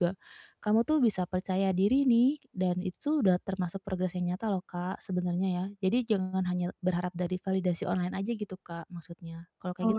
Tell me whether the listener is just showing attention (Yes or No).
No